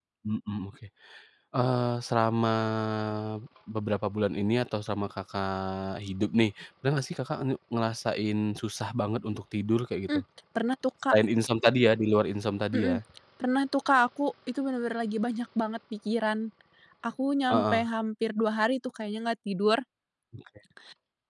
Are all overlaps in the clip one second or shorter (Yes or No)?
Yes